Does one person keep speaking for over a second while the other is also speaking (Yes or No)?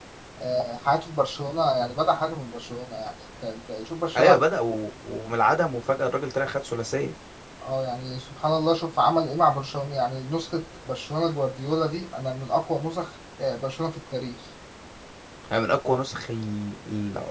No